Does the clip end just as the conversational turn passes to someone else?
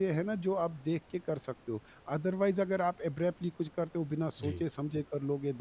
No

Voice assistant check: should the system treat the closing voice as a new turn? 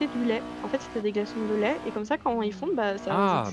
Yes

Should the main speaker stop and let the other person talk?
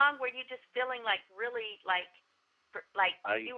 No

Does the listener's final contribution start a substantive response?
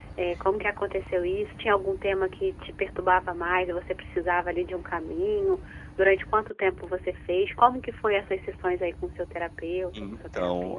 Yes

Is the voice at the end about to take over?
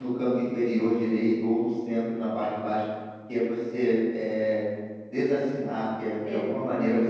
No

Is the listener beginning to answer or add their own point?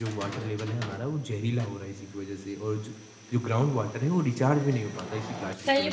Yes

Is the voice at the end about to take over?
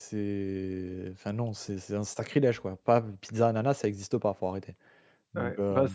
Yes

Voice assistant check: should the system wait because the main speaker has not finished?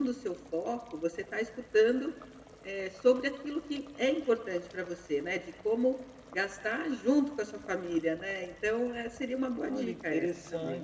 No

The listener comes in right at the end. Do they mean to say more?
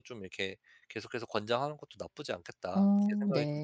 Yes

